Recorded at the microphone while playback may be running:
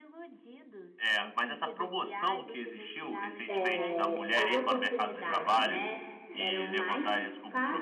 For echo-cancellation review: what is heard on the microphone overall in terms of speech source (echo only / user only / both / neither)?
both